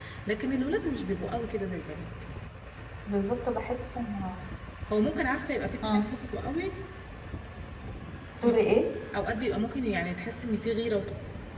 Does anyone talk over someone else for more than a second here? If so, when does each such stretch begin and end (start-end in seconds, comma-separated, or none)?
none